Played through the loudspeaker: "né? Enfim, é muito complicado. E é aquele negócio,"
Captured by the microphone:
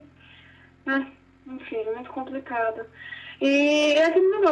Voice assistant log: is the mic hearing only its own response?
Yes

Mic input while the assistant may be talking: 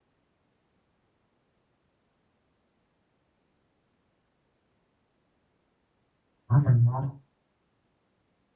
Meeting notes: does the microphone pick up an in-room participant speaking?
Yes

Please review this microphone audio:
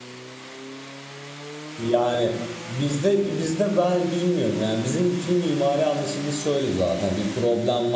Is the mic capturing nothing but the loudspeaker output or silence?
No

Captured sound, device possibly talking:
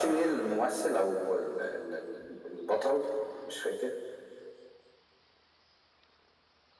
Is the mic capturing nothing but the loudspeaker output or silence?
Yes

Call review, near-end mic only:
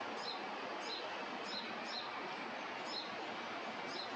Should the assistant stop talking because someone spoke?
No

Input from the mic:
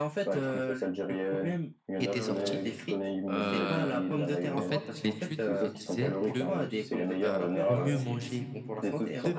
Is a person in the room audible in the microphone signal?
Yes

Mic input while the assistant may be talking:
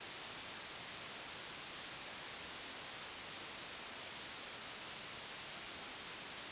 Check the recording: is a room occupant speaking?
No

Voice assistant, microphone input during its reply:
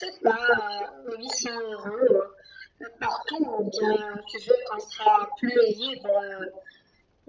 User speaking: No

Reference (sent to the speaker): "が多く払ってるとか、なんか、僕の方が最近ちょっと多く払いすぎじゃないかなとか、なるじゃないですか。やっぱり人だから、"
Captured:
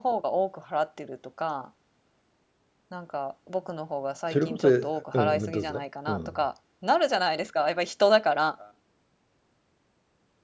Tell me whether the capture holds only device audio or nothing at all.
No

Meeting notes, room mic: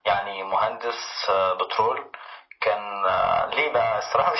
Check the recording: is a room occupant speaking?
No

